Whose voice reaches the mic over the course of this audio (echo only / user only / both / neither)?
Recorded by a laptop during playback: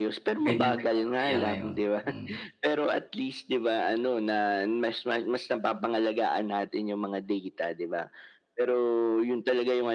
both